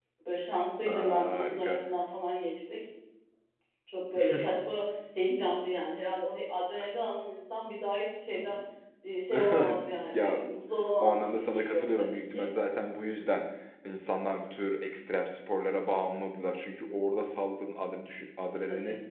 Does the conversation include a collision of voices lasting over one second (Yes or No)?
Yes